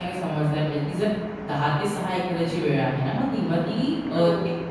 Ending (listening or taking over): listening